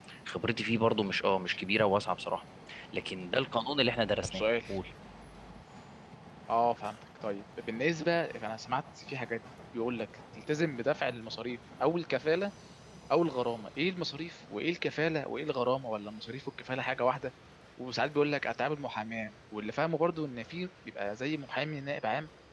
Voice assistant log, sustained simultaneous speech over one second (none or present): none